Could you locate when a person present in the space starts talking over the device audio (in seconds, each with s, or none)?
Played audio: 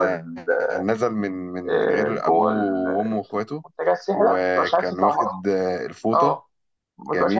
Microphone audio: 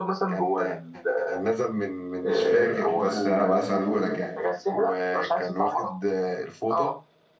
2.2 s